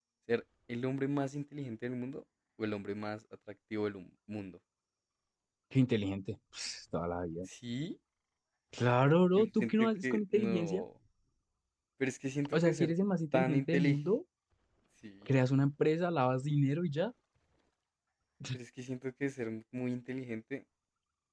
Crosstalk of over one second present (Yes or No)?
Yes